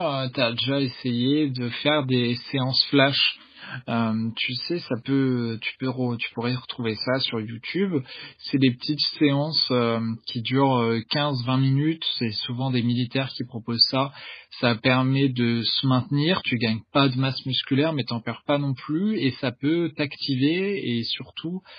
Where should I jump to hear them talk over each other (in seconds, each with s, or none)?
none